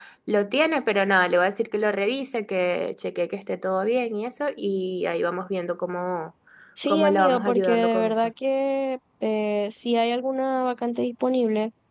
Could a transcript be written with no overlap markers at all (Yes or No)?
No